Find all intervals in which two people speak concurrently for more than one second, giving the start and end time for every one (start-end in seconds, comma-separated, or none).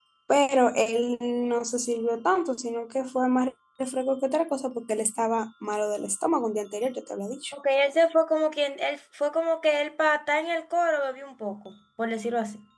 none